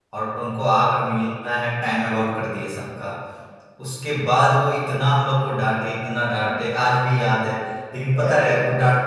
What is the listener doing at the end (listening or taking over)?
listening